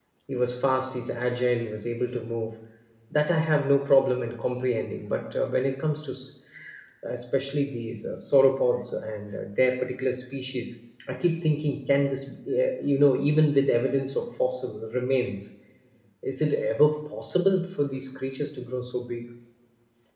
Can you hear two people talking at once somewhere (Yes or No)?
No